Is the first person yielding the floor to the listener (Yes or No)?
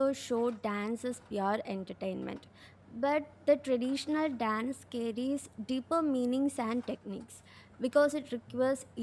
No